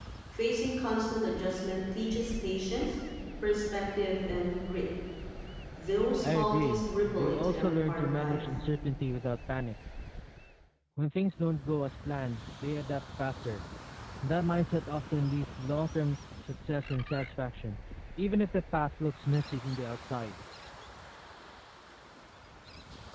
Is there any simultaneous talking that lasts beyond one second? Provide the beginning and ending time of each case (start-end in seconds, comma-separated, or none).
6.2-8.4